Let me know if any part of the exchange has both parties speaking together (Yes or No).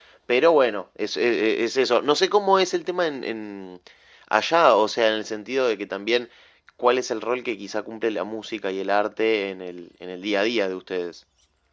No